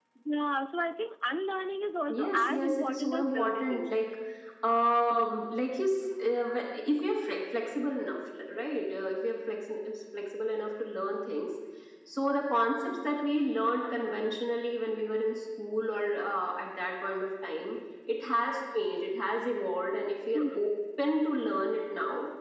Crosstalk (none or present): present